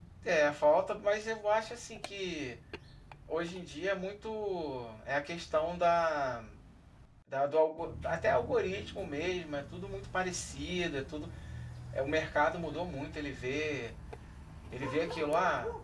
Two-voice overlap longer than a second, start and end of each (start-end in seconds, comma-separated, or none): none